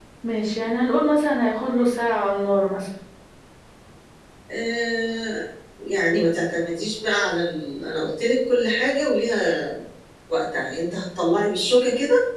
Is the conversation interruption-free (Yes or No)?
Yes